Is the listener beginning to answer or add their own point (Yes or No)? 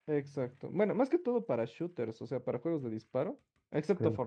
No